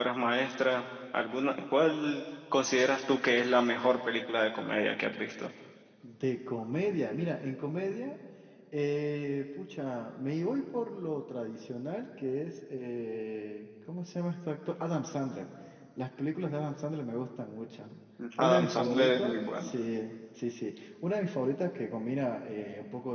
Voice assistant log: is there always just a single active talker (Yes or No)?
No